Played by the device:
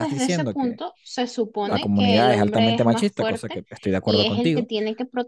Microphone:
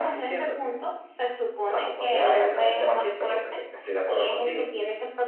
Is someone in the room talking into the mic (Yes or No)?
No